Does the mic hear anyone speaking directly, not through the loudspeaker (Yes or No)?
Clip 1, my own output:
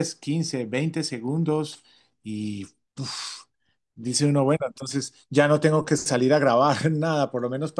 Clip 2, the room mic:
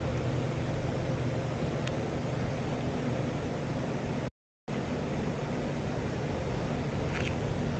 No